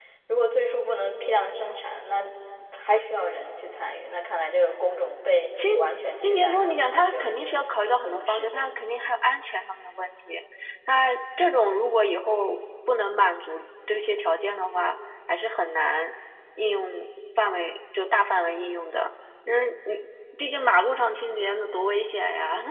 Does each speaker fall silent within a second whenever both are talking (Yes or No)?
No